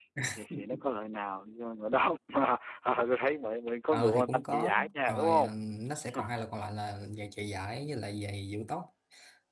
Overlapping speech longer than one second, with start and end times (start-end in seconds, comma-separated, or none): 3.9-5.5